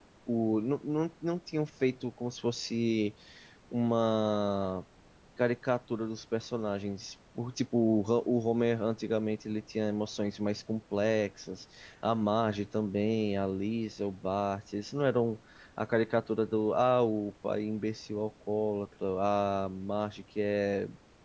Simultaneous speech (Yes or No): No